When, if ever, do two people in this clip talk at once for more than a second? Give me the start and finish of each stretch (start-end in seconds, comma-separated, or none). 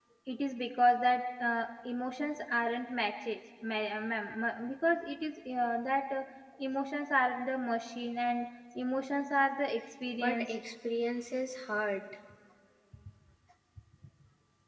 none